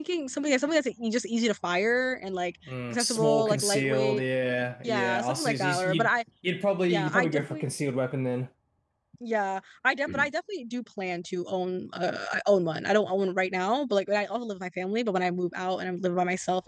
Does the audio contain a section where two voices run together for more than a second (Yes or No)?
Yes